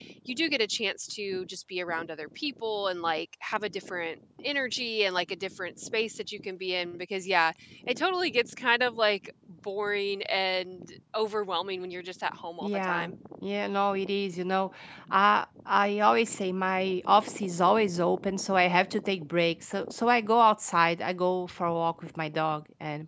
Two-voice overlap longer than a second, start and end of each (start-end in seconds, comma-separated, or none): none